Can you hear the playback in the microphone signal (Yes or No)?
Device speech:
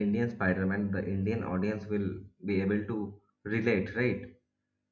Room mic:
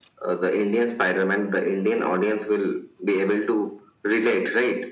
Yes